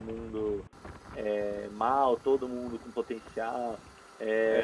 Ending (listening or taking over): taking over